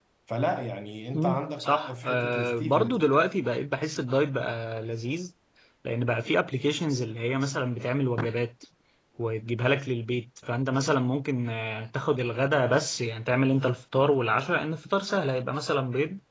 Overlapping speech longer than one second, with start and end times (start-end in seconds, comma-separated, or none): 1.1-3.1